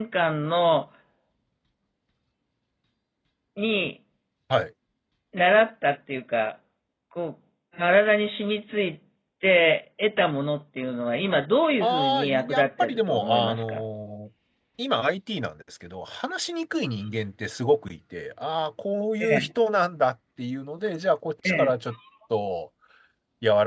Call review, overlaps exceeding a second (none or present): present